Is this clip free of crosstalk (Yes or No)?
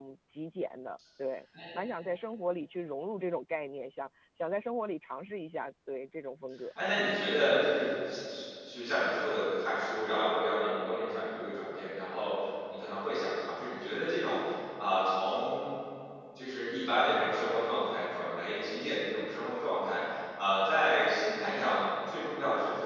Yes